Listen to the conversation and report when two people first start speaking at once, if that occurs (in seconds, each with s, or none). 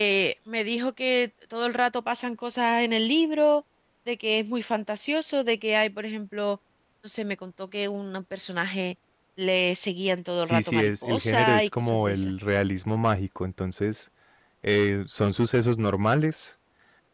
10.4 s